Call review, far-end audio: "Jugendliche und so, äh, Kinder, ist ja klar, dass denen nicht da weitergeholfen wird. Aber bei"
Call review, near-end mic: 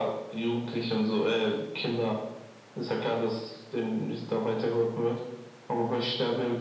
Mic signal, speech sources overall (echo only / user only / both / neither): echo only